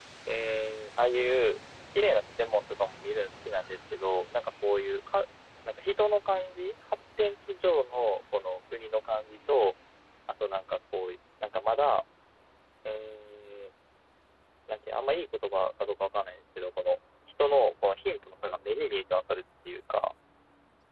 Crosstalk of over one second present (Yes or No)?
No